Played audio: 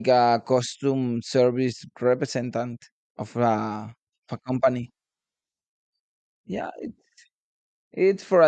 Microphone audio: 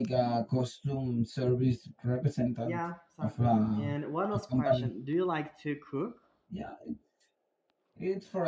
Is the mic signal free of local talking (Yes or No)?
No